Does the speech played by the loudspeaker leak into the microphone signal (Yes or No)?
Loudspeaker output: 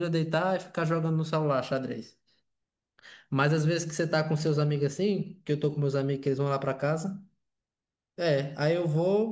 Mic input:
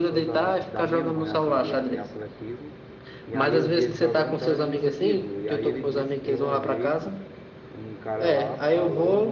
Yes